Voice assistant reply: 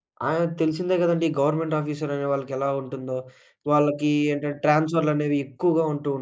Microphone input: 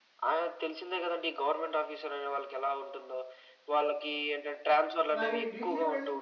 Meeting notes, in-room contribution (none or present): present